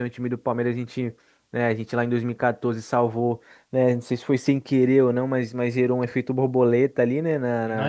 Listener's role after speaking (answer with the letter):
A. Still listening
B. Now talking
B